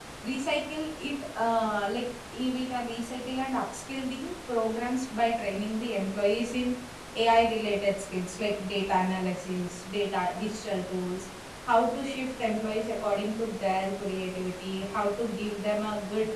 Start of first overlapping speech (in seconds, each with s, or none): none